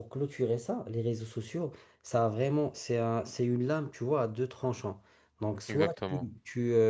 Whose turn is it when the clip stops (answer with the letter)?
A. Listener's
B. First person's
B